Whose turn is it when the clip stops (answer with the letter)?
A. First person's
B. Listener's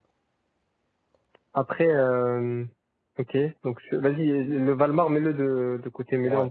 A